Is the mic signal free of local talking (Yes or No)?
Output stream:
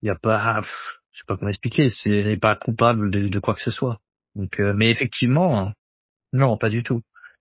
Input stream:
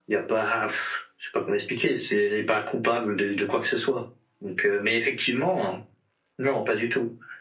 Yes